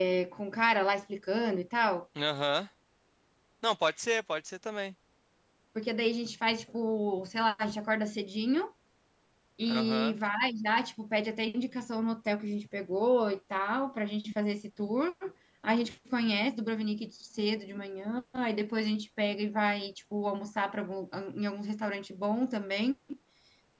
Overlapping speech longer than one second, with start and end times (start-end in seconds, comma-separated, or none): none